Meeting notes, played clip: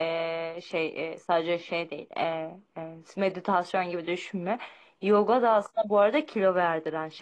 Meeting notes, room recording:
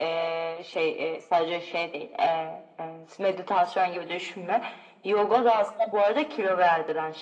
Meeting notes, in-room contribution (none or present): none